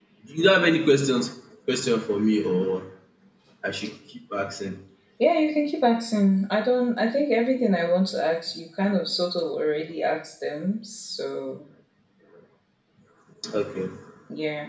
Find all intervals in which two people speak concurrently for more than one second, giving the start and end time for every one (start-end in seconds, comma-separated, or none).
none